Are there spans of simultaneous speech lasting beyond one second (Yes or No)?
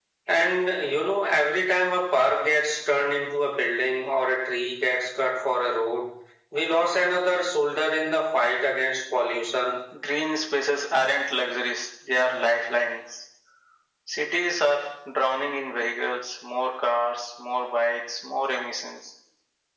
No